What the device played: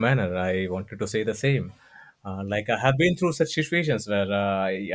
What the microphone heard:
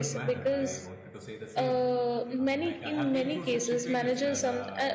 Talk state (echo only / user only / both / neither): both